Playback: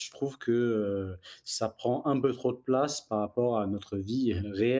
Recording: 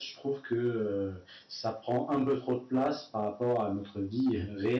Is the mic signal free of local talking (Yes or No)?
Yes